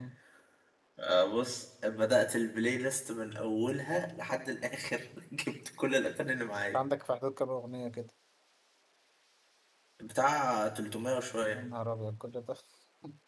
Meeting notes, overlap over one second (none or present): none